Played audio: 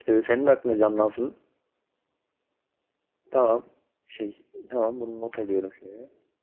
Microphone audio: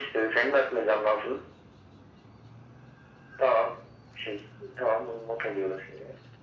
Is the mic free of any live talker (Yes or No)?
Yes